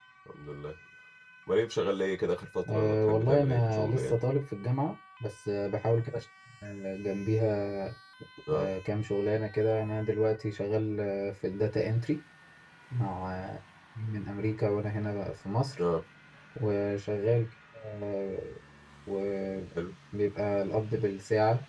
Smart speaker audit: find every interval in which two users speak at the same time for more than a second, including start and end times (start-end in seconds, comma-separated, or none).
2.7-4.2